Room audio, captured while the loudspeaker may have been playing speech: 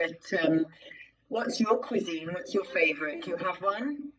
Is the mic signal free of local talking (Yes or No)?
No